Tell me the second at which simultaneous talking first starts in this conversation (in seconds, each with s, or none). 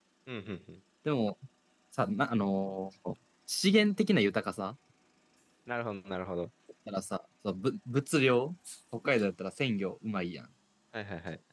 none